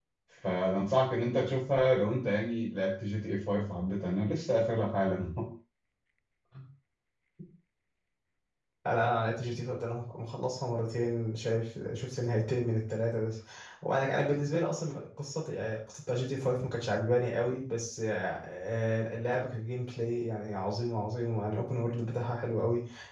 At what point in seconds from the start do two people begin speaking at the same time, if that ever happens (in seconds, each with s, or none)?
none